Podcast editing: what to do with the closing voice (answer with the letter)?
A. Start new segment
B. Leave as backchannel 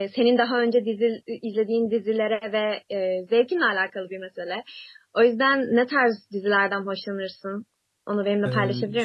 A